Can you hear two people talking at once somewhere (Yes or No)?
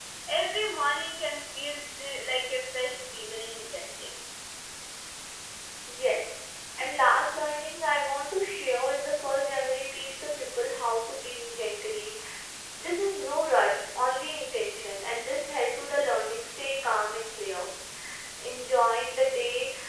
No